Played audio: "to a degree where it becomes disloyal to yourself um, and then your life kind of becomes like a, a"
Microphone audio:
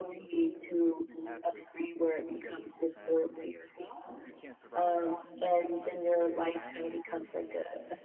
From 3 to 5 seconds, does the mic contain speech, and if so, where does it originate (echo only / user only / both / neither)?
both